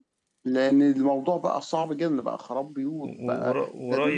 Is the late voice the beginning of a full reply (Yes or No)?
Yes